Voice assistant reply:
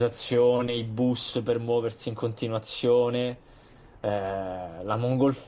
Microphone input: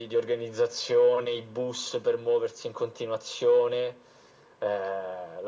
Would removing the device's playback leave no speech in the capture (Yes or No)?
Yes